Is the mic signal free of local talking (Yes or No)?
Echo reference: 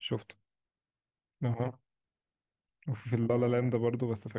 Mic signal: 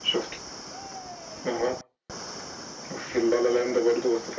Yes